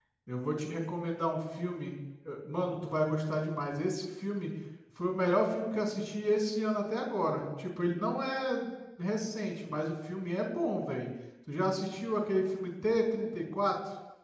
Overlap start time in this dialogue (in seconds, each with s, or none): none